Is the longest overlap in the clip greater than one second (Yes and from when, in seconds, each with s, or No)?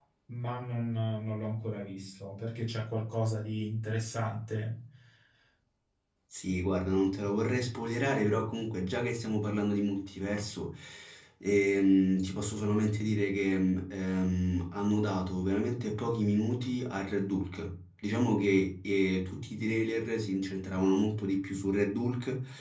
No